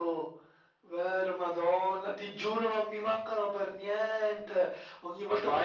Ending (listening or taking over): listening